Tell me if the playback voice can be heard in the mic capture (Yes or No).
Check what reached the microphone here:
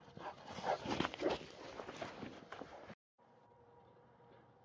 No